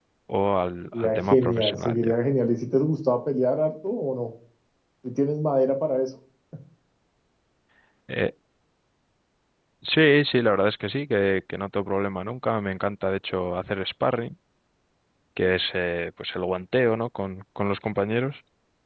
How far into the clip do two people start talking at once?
0.9 s

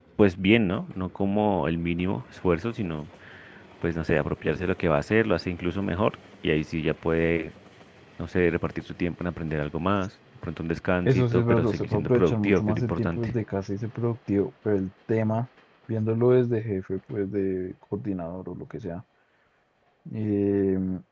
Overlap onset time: 11.1 s

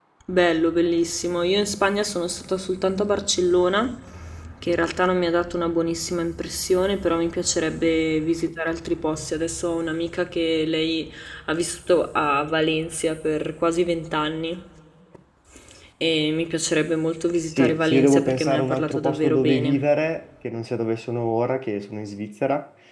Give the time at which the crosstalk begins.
17.5 s

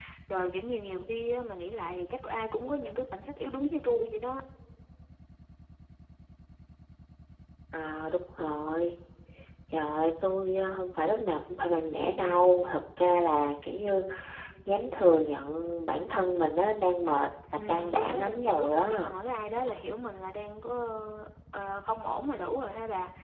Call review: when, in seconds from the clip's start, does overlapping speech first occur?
17.5 s

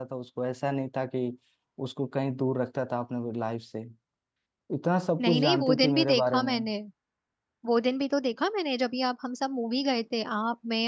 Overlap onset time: 5.2 s

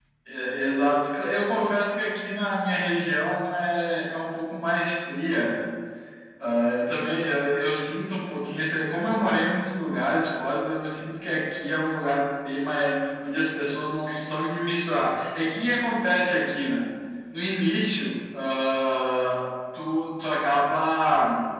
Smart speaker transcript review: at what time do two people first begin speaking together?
none

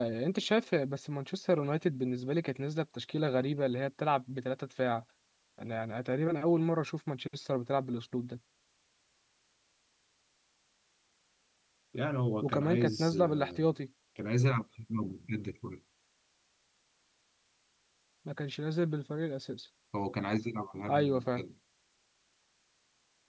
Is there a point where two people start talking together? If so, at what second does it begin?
12.4 s

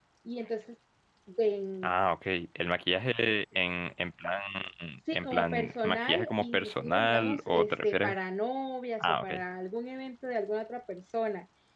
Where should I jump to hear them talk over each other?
5.1 s

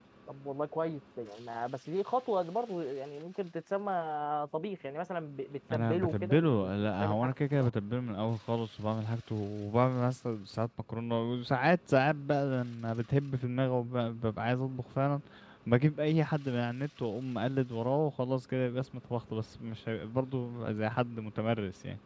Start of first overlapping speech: 5.7 s

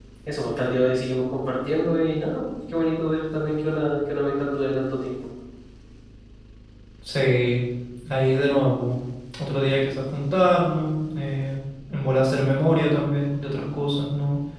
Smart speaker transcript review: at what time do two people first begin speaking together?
none

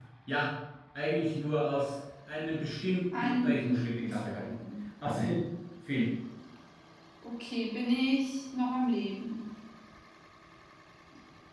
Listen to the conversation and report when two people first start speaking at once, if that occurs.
3.1 s

